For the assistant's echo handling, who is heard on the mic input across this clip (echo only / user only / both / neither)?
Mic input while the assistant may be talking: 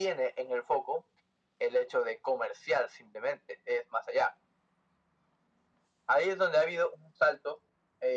echo only